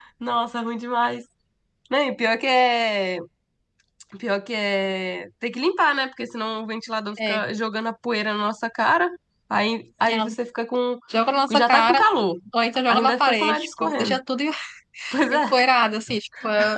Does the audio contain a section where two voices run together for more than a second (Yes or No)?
Yes